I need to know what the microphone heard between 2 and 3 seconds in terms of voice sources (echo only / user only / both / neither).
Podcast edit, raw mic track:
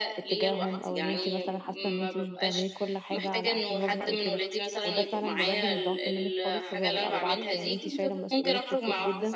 both